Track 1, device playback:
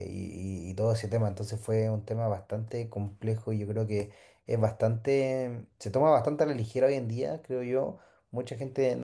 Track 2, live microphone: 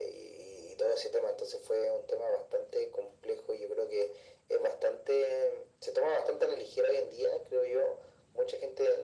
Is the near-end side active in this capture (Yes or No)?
No